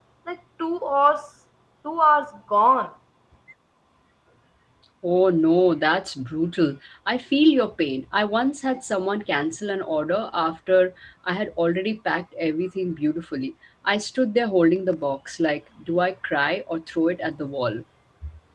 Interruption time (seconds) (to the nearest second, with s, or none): none